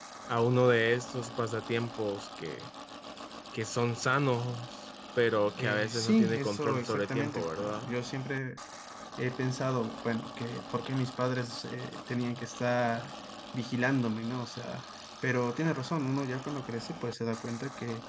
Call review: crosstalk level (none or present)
present